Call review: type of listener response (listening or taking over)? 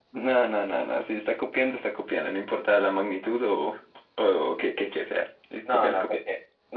taking over